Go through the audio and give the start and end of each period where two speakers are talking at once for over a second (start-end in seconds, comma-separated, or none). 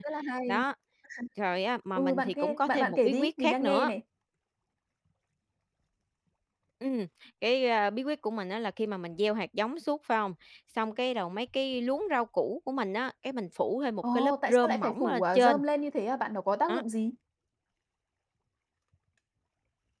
1.9-3.9, 14.2-15.6